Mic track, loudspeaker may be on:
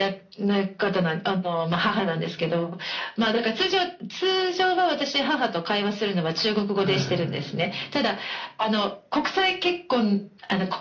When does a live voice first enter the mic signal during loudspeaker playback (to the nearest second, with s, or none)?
7 s